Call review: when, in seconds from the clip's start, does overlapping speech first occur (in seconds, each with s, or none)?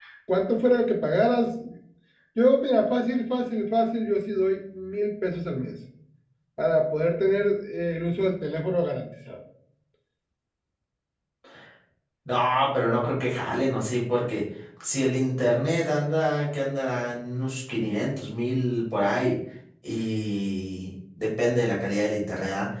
none